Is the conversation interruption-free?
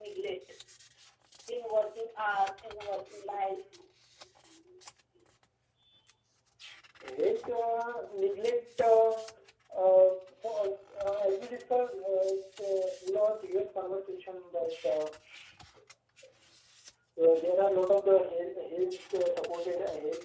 Yes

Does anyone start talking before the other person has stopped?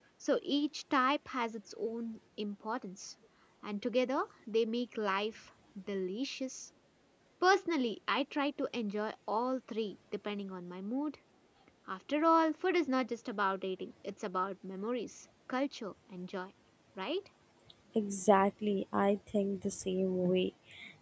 No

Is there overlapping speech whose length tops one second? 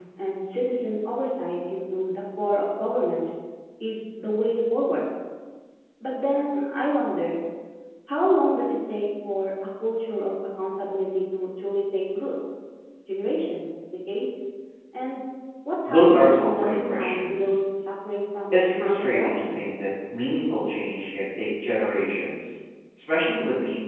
Yes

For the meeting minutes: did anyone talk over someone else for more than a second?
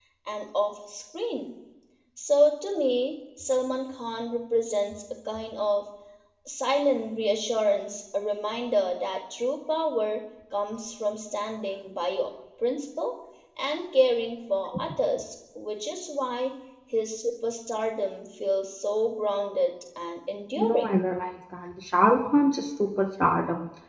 No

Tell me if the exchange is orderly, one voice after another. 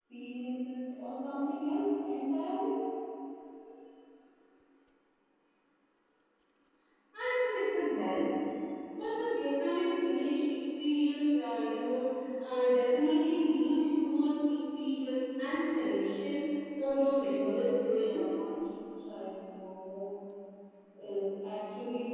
No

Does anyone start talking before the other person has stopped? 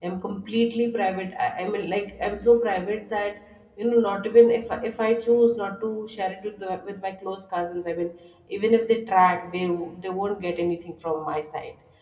No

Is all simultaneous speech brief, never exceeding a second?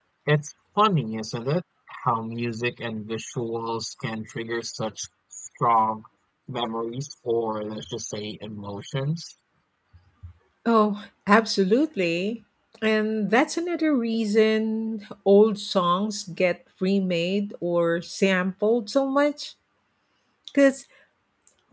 Yes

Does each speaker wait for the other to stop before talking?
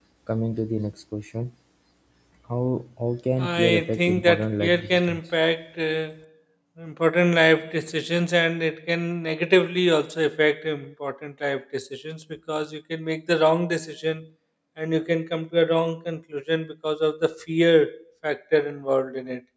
No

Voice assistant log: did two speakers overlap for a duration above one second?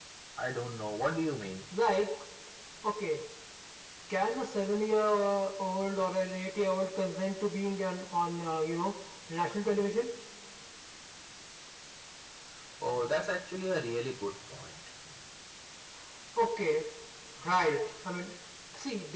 No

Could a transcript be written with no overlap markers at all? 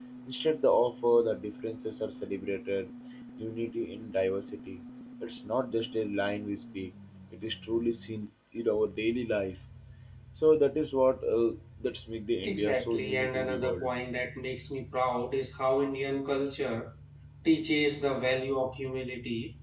No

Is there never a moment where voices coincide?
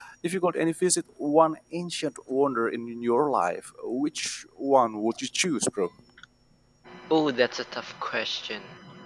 Yes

